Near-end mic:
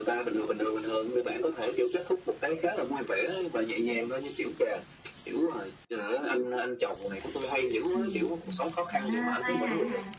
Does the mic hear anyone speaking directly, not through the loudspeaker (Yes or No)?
Yes